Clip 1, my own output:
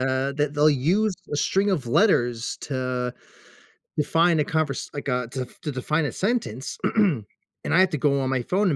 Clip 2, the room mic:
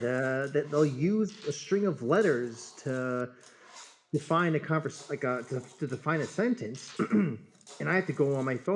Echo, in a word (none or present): present